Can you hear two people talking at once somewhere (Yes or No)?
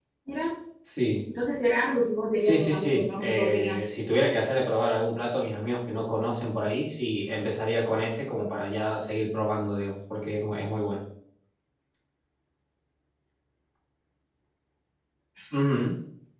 Yes